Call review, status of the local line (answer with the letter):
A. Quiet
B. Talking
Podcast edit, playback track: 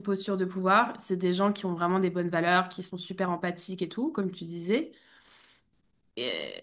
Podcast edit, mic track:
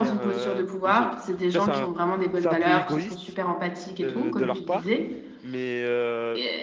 B